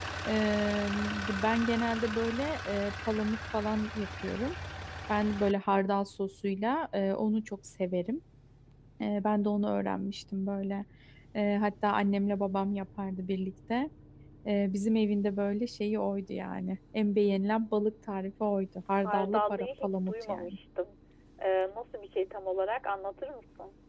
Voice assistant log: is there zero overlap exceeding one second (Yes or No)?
No